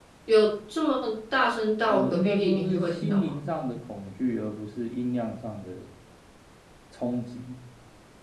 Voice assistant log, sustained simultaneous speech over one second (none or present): present